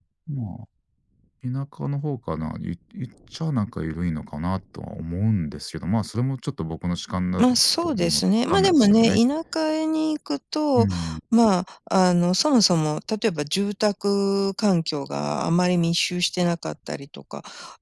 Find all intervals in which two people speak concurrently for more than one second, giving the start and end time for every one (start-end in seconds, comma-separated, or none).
7.4-9.2